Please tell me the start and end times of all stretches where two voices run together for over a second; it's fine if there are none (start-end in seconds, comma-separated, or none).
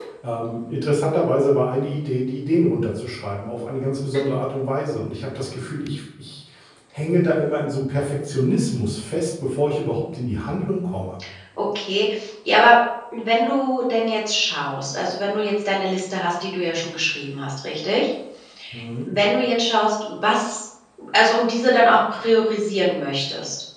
none